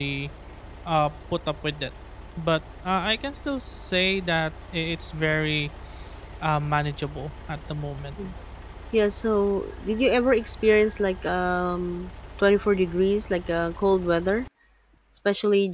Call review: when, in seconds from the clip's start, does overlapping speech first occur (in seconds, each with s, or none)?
none